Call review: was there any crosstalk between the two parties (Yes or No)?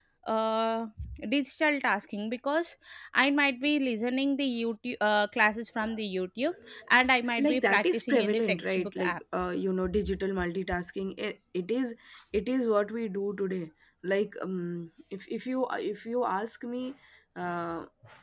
Yes